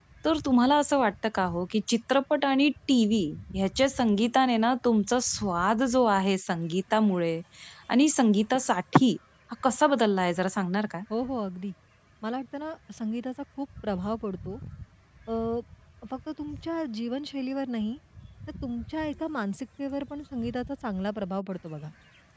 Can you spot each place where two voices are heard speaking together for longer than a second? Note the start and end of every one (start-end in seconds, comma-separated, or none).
none